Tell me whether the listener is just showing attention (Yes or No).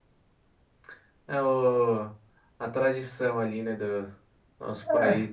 Yes